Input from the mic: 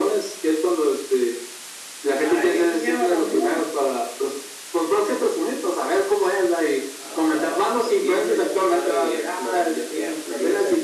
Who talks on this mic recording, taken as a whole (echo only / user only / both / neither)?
echo only